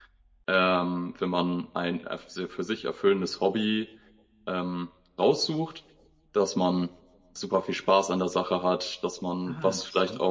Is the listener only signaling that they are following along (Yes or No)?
Yes